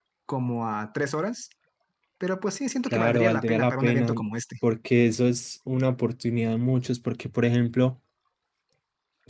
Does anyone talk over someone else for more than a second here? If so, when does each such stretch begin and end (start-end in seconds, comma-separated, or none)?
2.9-4.2